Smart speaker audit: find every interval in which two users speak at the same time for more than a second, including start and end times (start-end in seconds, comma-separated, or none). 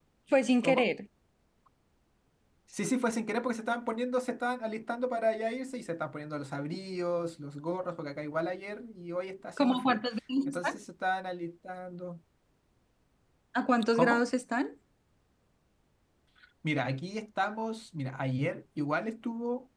none